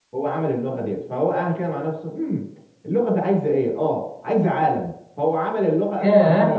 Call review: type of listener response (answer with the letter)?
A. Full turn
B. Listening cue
B